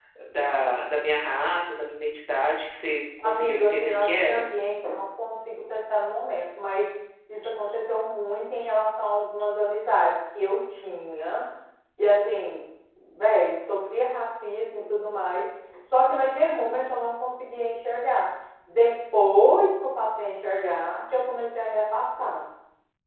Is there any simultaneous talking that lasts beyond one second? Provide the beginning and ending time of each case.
3.2-4.4

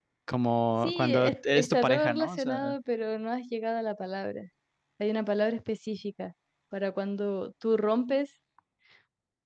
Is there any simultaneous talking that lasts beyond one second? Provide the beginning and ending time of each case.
0.8-2.7

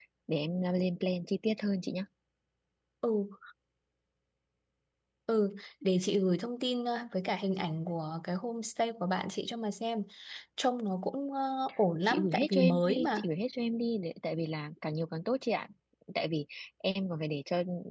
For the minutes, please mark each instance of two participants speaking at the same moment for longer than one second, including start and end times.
12.1-13.3

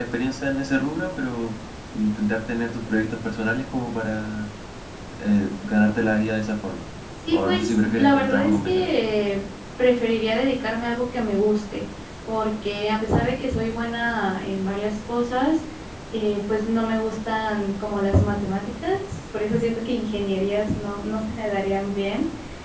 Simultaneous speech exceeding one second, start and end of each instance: 7.3-8.9

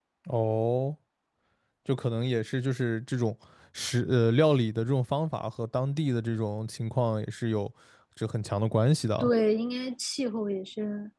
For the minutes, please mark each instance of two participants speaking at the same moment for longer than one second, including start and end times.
none

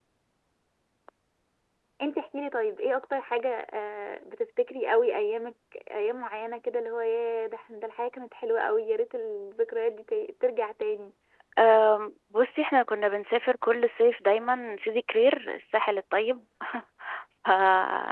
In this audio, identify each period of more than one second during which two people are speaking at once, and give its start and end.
none

